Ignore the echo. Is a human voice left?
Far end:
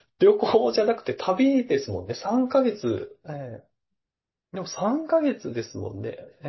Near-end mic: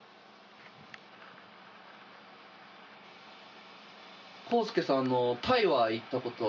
Yes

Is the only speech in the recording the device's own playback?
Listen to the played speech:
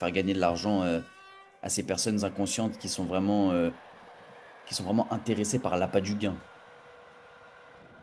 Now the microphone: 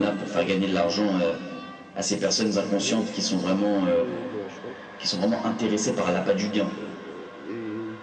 No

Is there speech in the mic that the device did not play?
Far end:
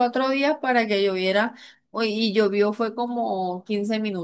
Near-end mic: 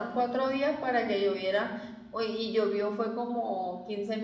No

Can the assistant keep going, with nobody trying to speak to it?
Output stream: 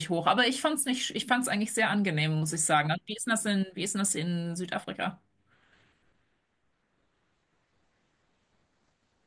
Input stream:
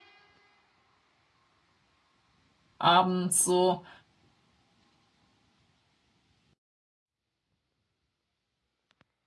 No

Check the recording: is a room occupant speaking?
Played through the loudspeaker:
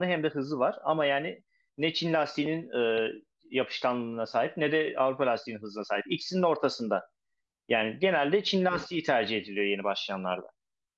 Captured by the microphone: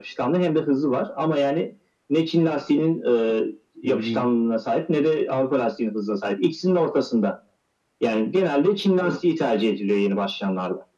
Yes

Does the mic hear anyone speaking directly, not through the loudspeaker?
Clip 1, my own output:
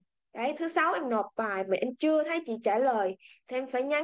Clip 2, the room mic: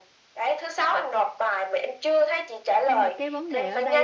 Yes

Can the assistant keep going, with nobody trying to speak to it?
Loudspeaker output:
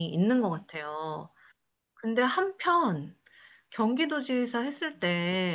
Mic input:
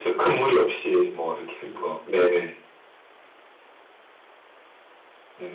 No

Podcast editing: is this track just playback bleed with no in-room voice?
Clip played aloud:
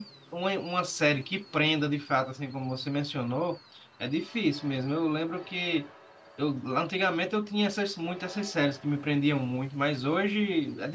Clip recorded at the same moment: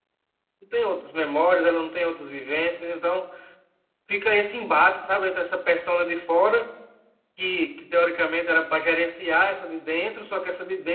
No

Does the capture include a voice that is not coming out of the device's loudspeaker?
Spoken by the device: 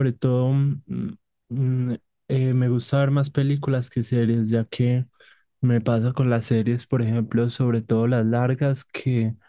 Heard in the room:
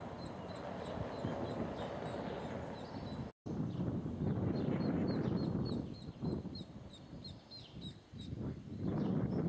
No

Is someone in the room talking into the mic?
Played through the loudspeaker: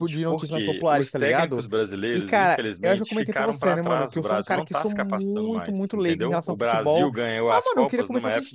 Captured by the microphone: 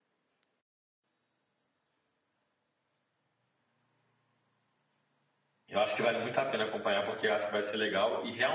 Yes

